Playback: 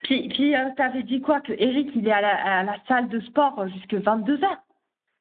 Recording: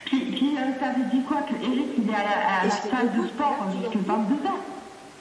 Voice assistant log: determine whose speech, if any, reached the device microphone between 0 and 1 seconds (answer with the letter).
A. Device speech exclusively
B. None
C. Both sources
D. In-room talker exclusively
A